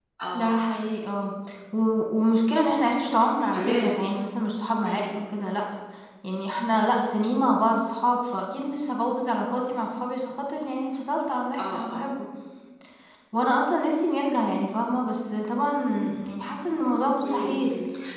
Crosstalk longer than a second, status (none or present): none